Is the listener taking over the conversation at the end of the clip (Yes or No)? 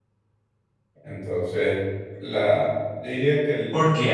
Yes